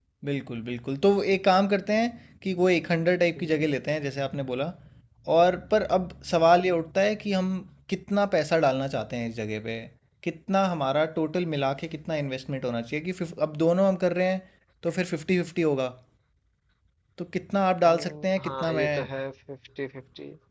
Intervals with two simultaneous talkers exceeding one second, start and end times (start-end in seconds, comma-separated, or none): 17.9-19.1